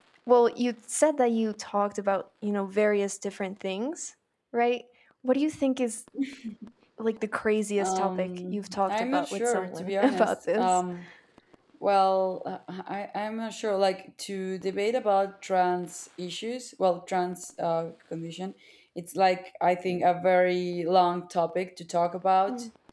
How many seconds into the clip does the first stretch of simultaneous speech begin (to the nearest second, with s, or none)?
8 s